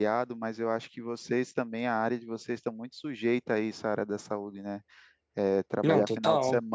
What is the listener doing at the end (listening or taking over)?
listening